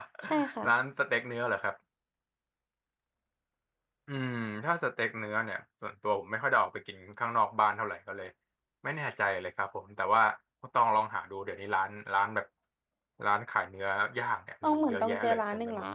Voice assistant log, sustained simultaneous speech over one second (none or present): present